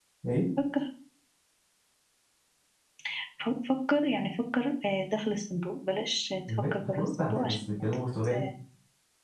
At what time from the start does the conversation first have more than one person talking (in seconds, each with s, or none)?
6.5 s